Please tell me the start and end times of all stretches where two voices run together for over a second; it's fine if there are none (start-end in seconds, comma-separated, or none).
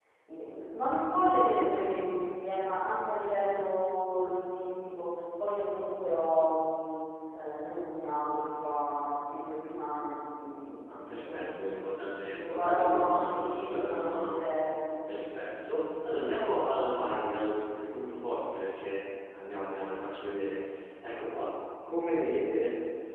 10.9-14.4